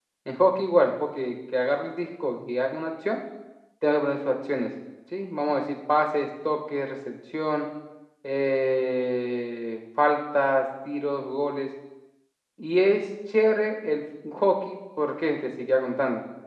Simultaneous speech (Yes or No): No